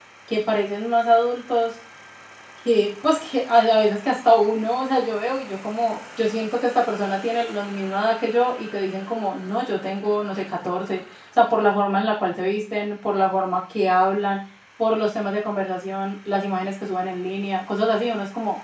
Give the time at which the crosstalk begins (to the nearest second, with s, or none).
none